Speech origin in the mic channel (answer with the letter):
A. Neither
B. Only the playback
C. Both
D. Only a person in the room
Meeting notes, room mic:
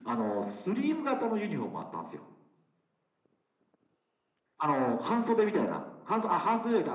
B